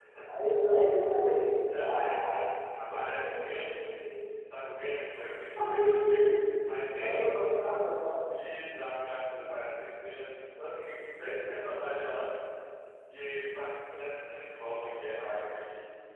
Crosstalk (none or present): present